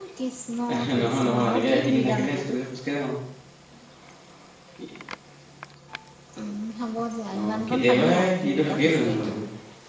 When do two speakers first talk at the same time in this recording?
1.0 s

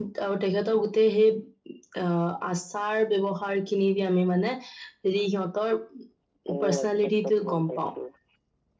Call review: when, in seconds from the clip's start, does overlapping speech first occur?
6.6 s

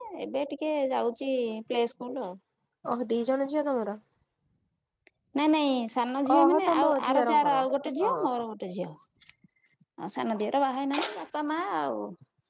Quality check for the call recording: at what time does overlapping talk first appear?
6.3 s

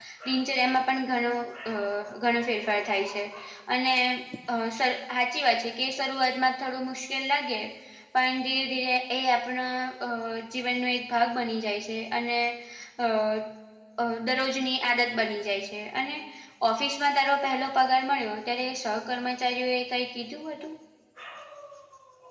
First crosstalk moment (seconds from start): none

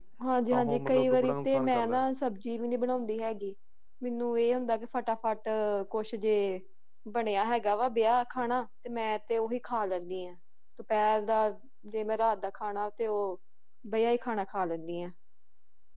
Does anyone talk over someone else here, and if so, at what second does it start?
0.5 s

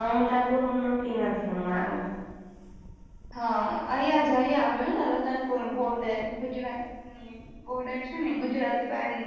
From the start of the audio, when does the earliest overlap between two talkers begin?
none

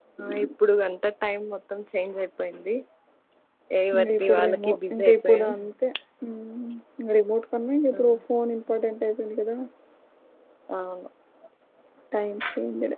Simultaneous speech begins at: 3.9 s

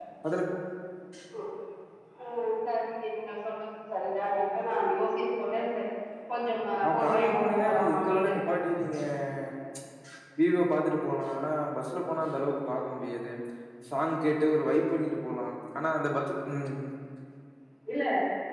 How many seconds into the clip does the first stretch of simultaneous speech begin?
6.8 s

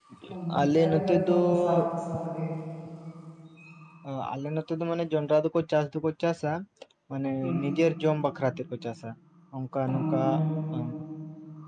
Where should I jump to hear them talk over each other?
0.5 s

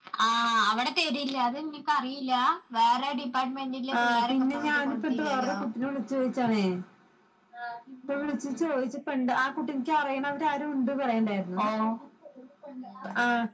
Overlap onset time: 4.0 s

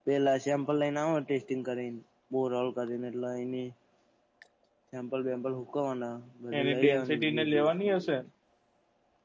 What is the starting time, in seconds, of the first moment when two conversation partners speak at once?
6.5 s

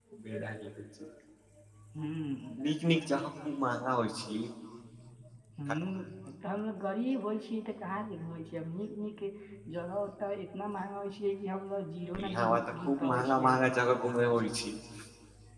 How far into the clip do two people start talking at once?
12.1 s

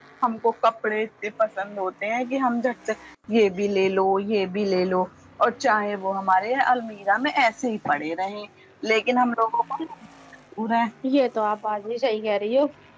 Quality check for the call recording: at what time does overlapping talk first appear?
none

